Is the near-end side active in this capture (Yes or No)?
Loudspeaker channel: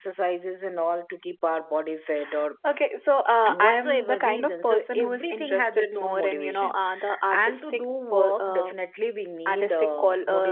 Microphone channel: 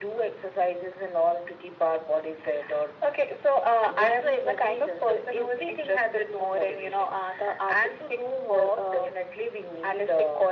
No